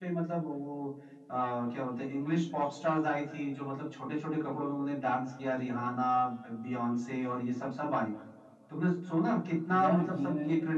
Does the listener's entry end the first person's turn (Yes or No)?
No